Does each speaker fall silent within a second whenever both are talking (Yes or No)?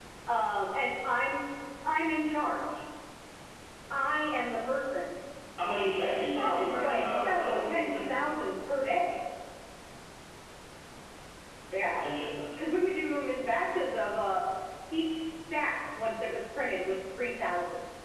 No